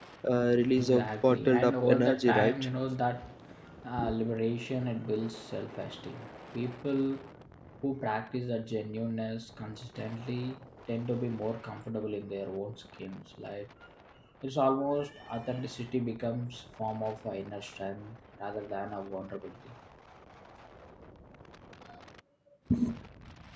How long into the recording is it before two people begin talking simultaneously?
0.8 s

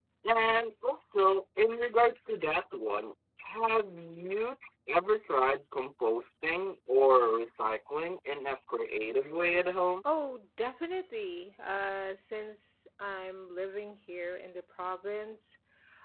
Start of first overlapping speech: none

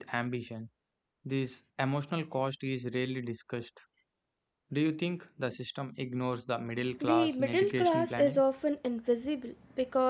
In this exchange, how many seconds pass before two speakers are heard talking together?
7.0 s

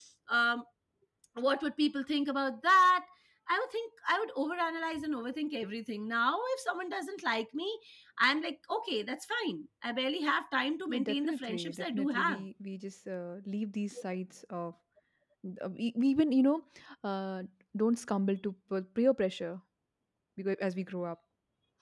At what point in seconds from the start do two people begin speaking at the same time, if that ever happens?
10.9 s

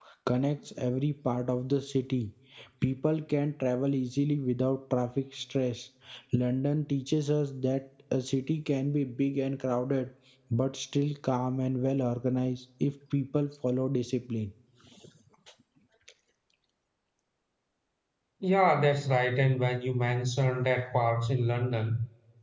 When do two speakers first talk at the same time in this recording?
none

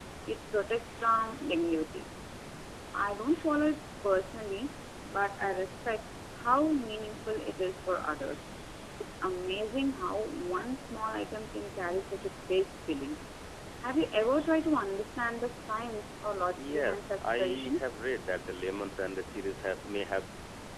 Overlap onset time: 16.6 s

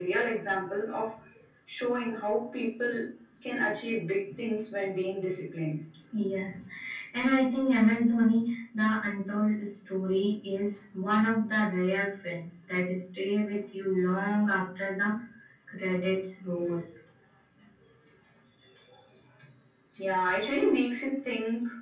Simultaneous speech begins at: none

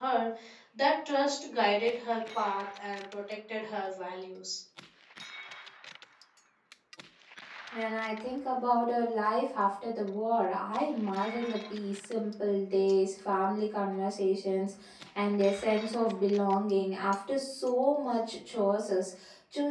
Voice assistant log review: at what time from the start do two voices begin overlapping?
none

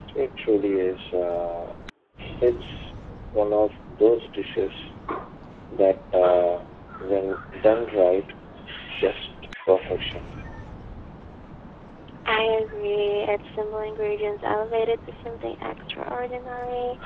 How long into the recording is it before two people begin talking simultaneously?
none

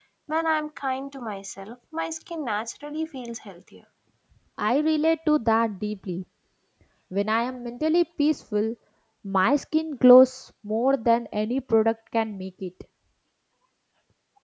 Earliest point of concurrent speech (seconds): none

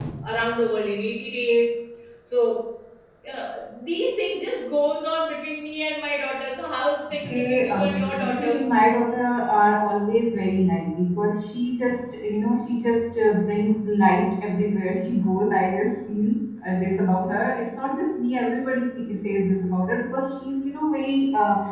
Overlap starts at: 7.2 s

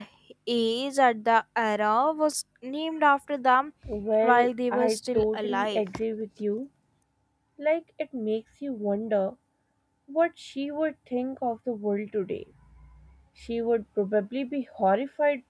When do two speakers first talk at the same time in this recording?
4.2 s

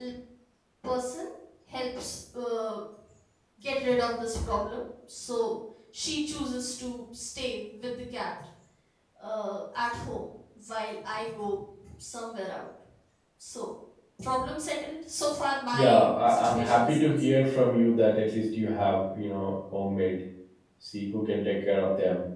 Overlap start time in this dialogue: 15.7 s

